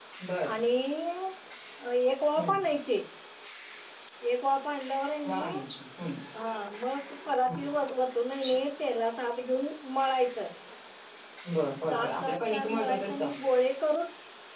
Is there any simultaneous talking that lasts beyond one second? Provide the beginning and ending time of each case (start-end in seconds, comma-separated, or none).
11.9-13.3